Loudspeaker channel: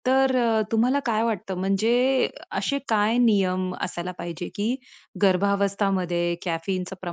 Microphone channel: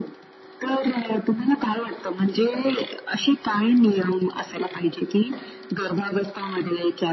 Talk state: echo only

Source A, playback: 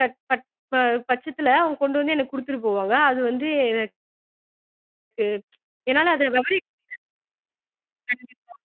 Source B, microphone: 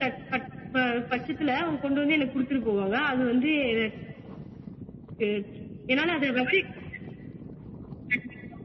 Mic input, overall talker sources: echo only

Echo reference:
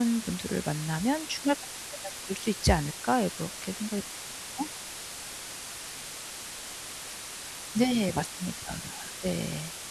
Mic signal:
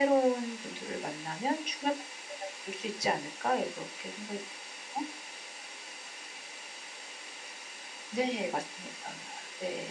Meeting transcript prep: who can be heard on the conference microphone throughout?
echo only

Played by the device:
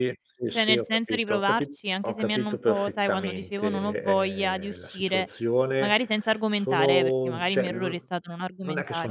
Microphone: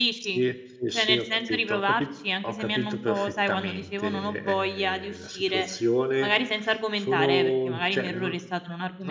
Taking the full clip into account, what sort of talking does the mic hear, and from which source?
echo only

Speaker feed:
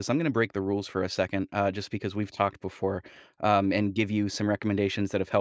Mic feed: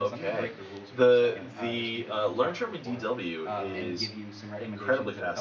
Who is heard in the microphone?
both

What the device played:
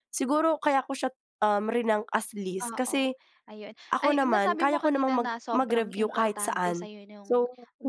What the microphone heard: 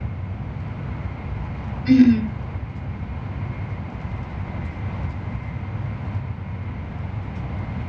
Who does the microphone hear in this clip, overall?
user only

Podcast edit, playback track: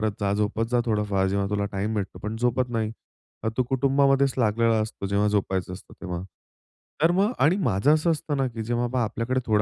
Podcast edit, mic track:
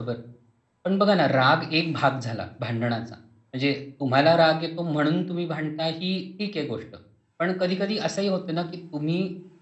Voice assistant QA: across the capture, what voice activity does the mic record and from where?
user only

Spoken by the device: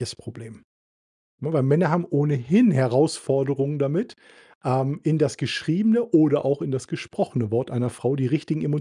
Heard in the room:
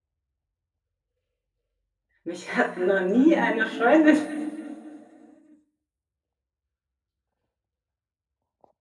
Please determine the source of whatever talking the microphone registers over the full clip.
user only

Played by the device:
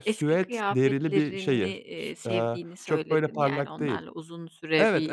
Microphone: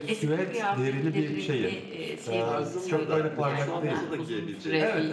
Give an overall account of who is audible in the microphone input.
both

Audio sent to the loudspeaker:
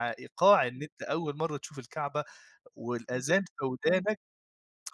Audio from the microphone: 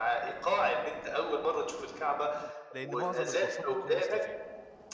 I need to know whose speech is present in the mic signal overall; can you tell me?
both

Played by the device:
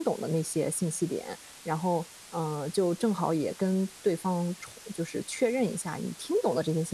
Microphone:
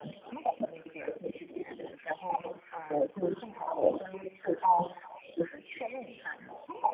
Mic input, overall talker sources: echo only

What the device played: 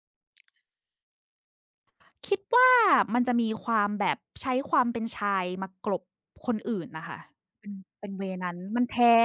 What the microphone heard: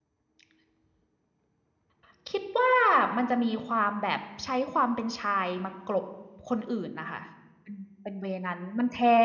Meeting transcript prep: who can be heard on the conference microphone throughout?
echo only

